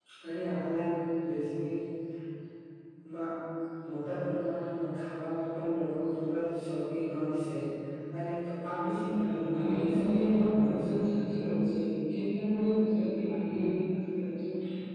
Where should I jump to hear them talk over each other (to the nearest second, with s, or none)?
9 s